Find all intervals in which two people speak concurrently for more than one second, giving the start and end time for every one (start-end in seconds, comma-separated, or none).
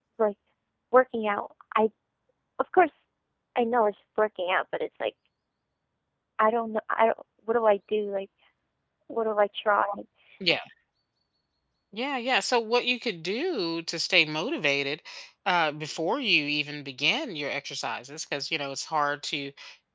none